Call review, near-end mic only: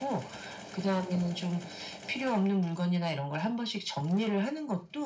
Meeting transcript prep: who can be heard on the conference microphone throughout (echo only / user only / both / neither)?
echo only